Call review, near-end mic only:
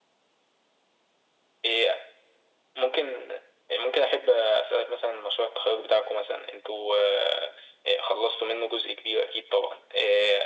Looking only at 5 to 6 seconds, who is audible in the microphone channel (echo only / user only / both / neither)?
echo only